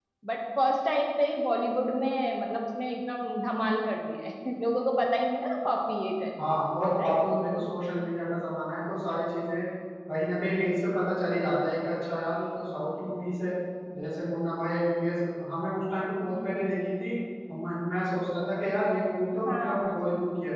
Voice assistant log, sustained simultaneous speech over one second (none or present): none